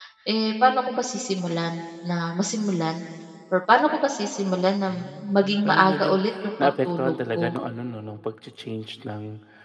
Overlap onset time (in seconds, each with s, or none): 4.9 s